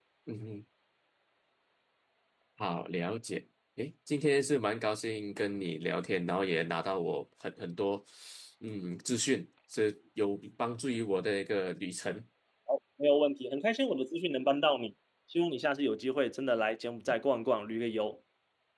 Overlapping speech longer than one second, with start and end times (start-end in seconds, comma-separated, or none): none